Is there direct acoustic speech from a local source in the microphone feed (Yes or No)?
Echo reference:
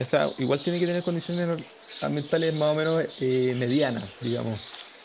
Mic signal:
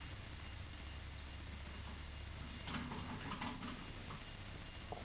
No